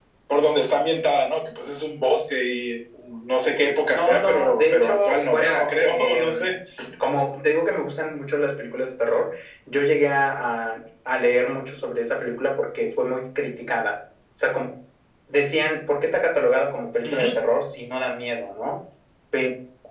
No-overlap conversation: No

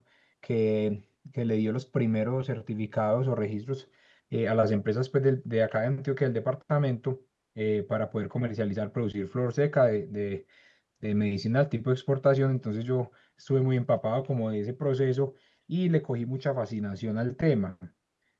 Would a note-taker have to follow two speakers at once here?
No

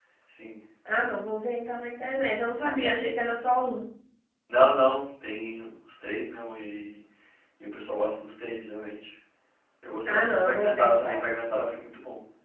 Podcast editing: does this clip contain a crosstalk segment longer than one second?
Yes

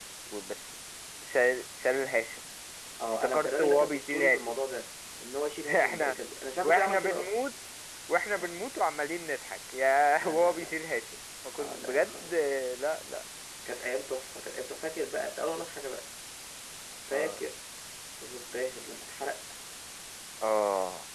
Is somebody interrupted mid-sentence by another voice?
Yes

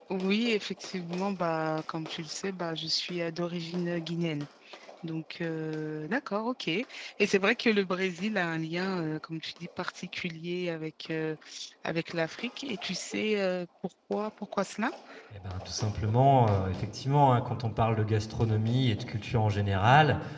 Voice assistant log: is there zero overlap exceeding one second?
Yes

